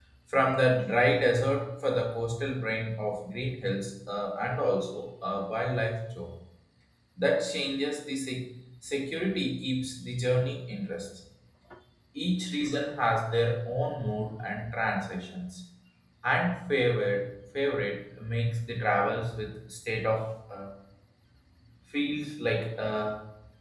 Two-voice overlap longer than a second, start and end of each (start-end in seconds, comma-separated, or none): none